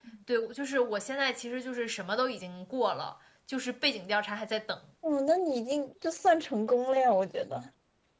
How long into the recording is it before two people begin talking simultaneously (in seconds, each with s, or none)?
none